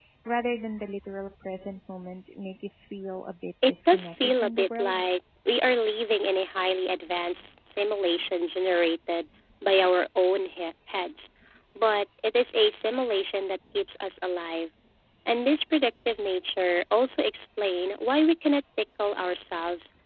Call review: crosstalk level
present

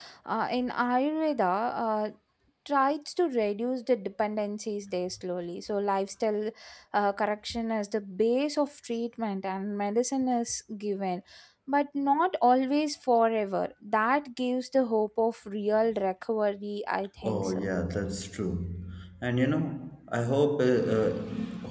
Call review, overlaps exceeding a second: none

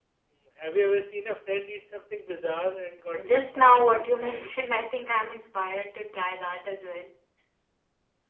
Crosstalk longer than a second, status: present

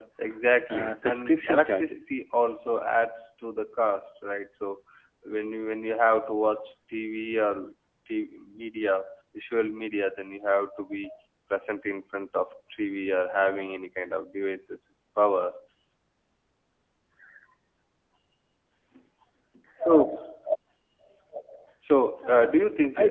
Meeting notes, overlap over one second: present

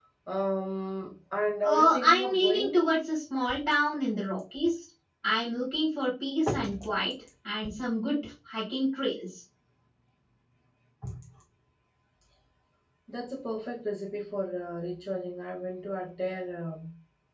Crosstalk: present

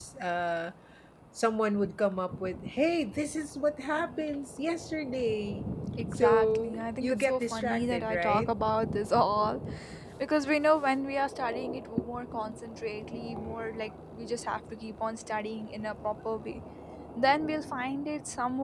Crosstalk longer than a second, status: present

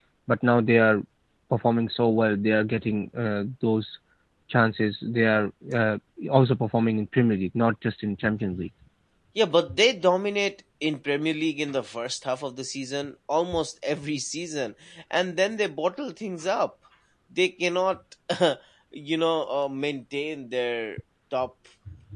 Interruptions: none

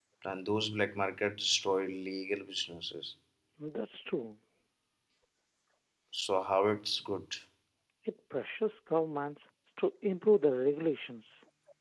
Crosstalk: none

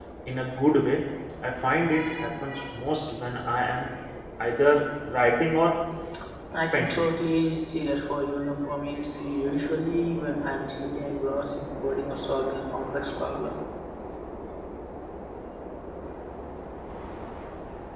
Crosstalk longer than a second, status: none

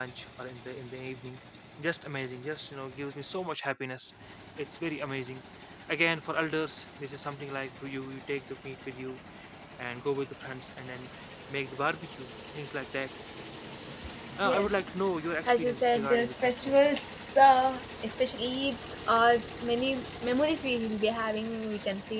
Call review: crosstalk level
present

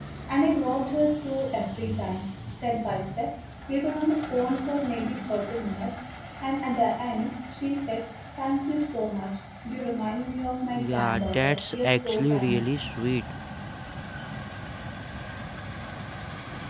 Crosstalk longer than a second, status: present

